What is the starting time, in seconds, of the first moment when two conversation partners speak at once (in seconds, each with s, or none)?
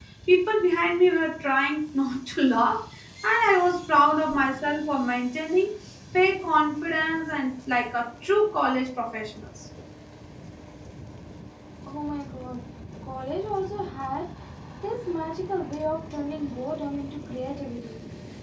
none